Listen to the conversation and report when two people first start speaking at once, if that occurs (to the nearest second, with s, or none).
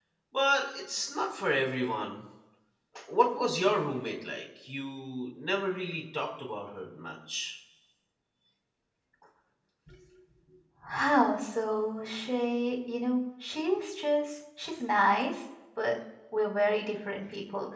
none